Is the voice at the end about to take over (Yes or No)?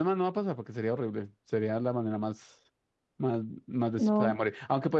No